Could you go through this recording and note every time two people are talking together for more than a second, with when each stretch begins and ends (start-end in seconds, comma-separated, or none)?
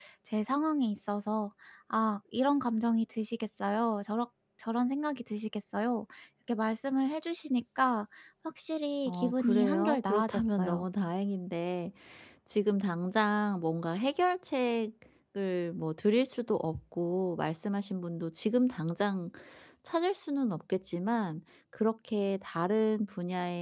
9.1-10.9